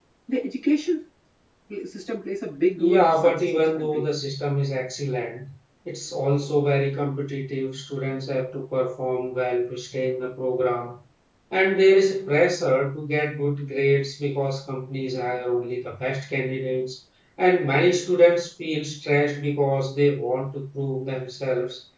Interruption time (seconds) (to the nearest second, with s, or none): 3 s